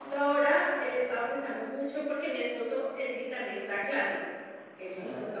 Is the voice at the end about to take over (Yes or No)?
No